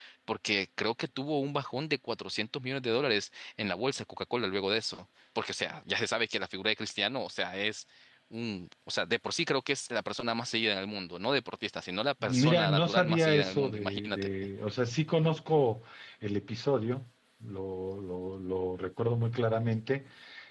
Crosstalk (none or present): present